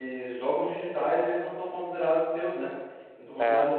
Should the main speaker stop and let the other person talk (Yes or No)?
No